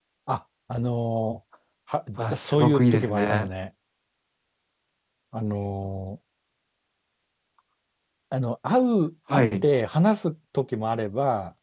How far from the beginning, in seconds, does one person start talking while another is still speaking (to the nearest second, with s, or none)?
2 s